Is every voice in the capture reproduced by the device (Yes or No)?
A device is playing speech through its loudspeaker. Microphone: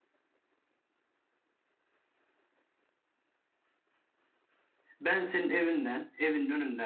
No